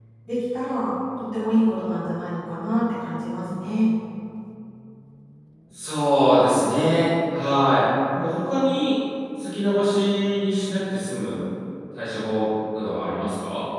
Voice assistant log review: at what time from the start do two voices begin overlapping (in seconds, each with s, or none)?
none